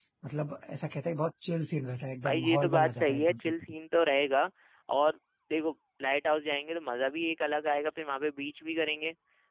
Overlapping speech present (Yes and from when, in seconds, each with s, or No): Yes, from 2.2 s